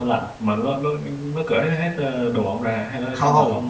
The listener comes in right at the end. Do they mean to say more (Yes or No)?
Yes